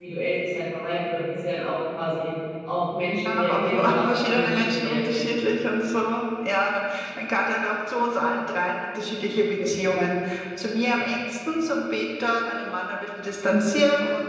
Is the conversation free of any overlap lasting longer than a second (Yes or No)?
No